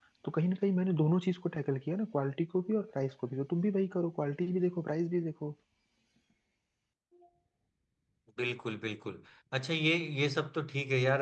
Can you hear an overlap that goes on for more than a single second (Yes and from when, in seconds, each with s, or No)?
No